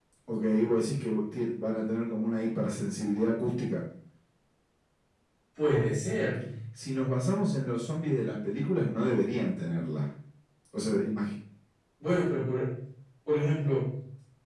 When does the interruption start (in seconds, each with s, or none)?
none